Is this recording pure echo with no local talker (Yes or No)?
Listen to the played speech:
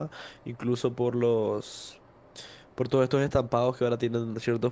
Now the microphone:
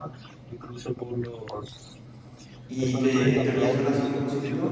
No